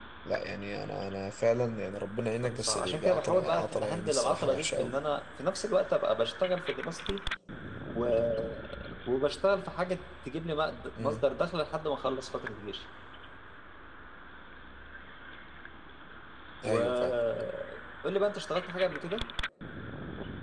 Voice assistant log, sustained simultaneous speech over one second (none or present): present